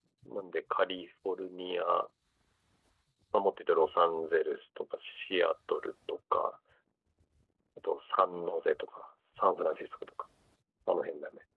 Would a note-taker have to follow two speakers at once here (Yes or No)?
No